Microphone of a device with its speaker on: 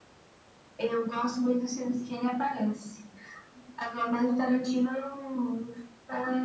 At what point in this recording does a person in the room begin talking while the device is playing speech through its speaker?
none

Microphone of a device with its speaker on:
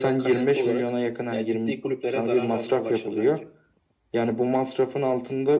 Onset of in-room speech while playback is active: none

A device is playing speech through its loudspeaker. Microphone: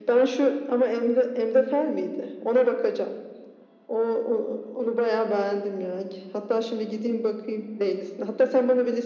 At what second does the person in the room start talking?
none

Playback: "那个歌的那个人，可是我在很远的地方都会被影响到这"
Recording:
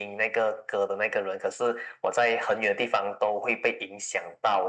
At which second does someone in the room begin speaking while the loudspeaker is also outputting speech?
none

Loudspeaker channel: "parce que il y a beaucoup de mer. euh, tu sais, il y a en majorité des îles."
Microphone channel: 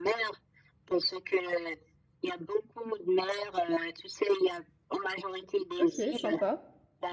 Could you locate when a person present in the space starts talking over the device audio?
5.8 s

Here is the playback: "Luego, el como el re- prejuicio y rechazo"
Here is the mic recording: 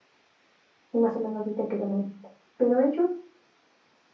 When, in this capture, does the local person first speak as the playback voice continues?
0.9 s

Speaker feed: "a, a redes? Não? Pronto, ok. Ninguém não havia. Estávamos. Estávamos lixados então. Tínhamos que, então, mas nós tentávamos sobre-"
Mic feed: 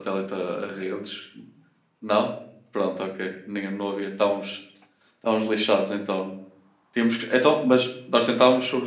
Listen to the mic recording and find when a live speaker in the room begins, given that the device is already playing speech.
none

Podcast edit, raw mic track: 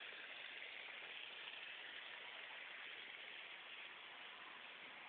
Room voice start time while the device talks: none

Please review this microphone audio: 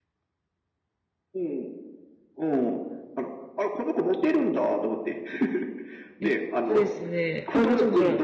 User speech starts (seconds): 6.2 s

